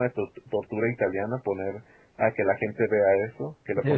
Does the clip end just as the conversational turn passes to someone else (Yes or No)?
No